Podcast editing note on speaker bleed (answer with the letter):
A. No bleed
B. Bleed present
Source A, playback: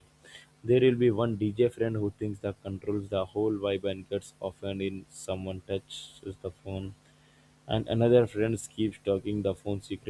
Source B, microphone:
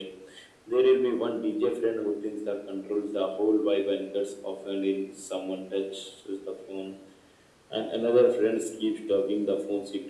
B